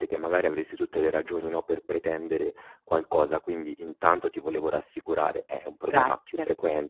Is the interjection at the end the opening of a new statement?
No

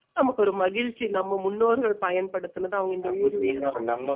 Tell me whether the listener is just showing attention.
No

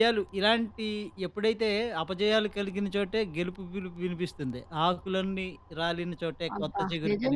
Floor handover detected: Yes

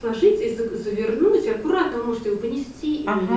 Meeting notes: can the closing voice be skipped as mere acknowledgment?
Yes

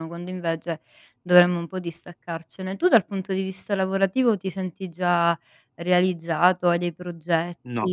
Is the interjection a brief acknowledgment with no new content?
No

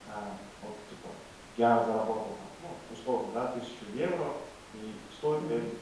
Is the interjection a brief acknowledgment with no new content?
Yes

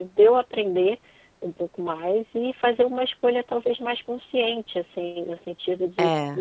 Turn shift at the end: No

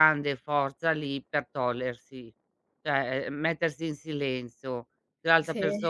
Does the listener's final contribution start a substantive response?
No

